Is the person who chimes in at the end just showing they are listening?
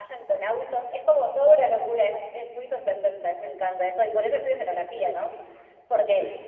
Yes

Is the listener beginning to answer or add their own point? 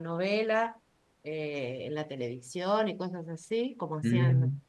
Yes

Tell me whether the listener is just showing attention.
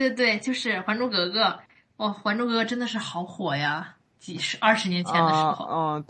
No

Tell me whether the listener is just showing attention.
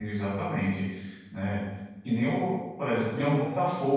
Yes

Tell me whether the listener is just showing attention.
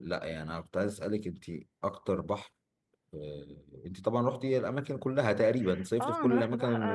No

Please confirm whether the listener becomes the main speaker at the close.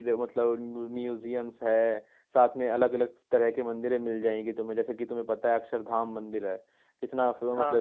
Yes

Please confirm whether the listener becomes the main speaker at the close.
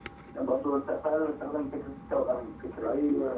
Yes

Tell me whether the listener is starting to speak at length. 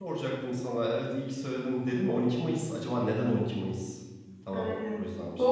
Yes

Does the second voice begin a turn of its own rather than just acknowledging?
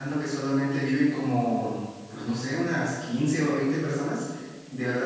No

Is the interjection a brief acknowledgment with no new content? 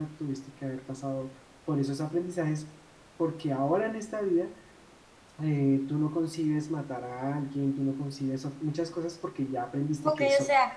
No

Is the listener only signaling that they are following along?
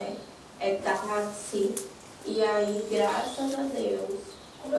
No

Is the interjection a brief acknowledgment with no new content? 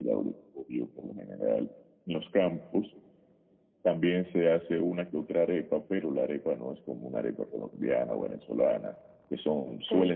Yes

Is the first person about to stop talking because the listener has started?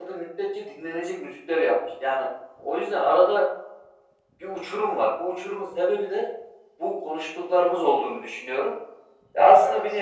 No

